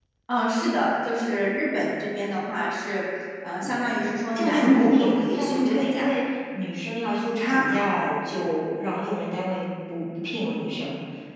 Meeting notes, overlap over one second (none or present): present